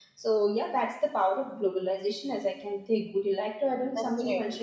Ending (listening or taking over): taking over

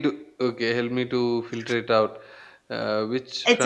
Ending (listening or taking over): taking over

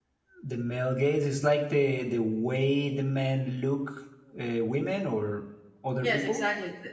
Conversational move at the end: taking over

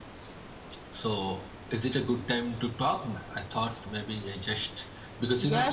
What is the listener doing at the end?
taking over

